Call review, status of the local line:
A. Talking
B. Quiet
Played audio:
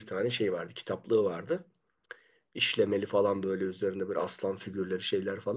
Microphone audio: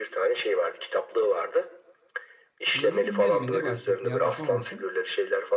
A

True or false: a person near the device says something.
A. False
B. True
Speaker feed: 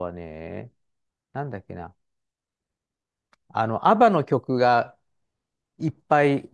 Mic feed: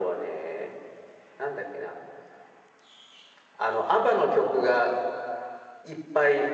A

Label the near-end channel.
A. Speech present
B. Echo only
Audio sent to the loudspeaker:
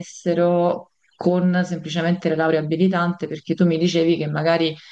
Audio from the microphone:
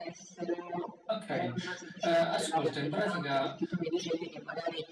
A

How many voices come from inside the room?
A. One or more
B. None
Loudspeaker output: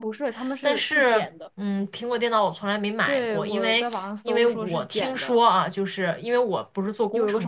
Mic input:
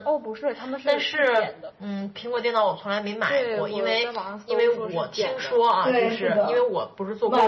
A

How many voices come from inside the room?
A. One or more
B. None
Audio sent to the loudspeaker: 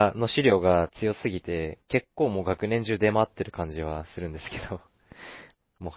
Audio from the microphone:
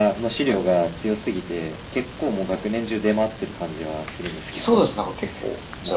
A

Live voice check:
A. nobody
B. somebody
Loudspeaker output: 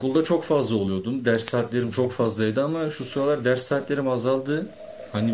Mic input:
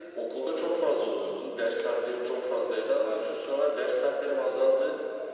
A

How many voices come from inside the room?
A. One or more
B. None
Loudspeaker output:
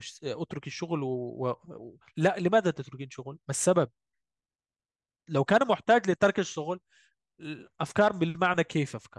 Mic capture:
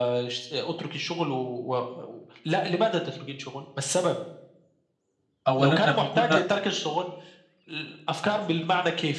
A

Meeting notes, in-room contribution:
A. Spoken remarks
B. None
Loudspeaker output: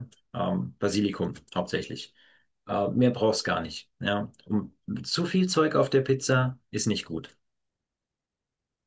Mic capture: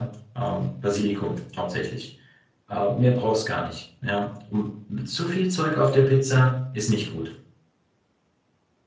B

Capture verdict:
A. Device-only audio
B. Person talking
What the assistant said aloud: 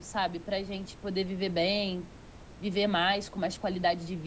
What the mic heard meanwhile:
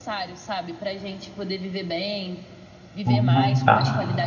B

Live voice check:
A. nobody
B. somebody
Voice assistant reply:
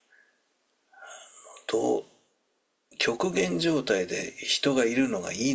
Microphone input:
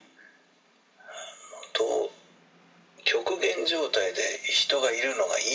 A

